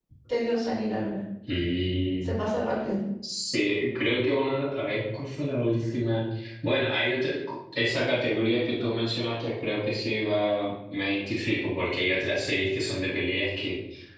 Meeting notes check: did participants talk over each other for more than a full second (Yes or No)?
No